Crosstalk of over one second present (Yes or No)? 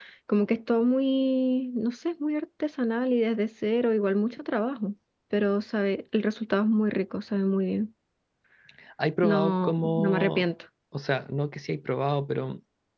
Yes